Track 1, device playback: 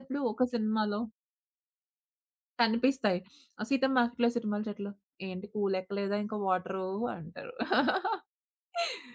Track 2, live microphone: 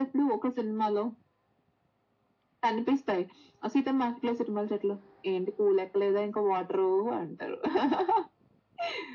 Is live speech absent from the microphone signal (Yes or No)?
Yes